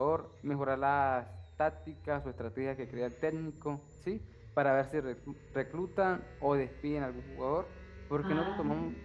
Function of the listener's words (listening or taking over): listening